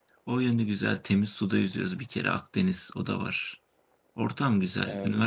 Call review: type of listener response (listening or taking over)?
listening